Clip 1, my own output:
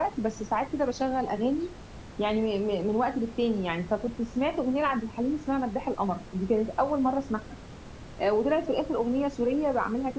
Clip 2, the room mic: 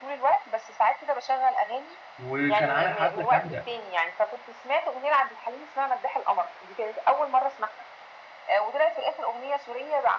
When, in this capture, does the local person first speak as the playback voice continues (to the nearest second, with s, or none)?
2 s